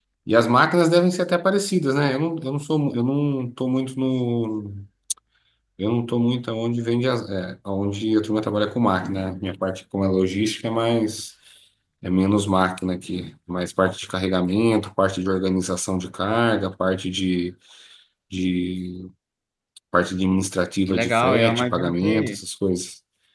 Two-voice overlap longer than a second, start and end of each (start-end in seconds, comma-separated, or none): 20.9-22.4